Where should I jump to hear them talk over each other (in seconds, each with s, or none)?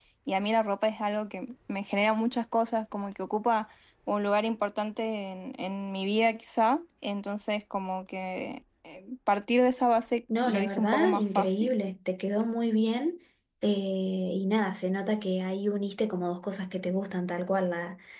10.3 s